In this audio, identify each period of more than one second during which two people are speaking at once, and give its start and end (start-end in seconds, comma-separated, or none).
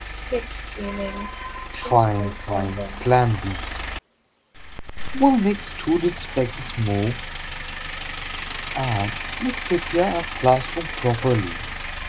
1.8-3.0